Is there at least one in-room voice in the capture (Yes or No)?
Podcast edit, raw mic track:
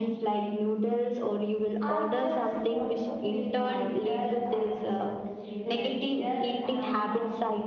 Yes